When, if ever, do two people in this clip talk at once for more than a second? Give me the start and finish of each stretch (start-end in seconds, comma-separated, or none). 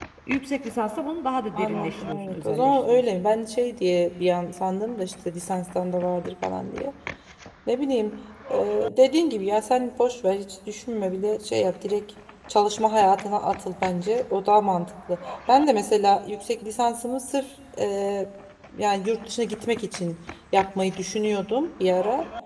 1.6-3.0